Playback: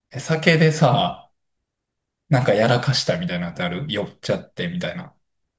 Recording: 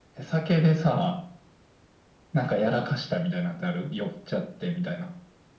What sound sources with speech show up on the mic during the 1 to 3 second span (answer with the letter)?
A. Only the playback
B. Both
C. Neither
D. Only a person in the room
A